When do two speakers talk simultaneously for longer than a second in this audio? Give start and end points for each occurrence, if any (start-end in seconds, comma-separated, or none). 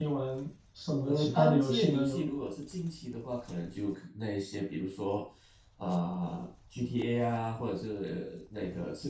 1.1-2.3